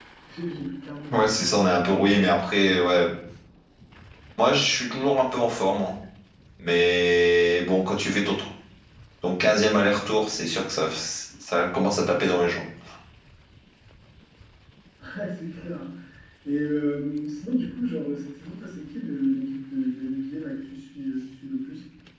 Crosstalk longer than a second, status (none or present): none